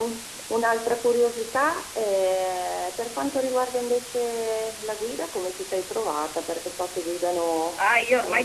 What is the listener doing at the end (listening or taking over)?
taking over